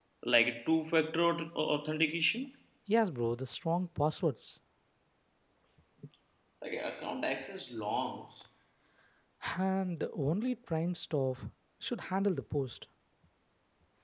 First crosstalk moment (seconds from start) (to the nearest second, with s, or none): none